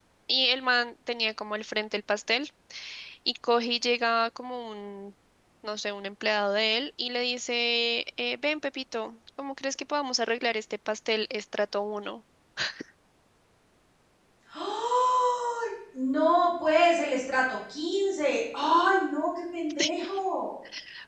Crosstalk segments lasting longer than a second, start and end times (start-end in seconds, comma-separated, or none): none